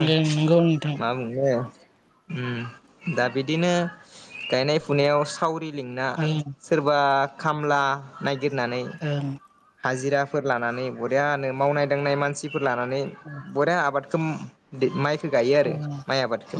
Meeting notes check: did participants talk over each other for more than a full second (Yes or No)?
No